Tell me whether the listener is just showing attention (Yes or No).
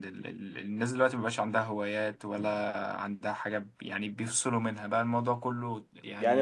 No